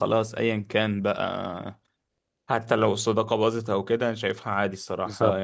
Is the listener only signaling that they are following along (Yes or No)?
Yes